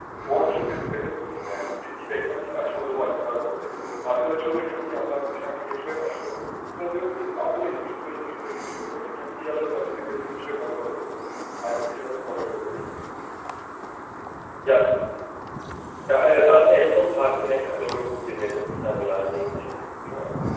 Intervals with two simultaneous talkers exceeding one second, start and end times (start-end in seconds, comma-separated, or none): none